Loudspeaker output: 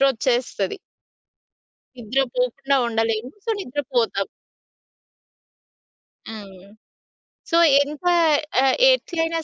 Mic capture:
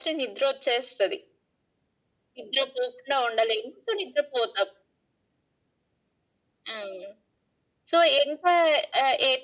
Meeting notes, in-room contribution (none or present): none